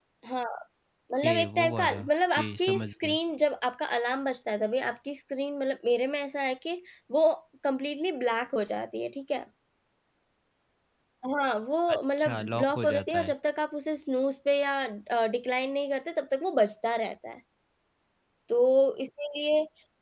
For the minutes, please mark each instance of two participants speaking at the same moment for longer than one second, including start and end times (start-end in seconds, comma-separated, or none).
1.2-3.2, 11.9-13.3